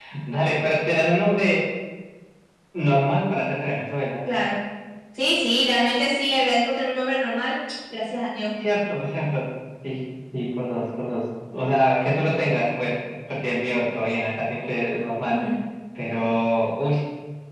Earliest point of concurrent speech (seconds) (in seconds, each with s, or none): none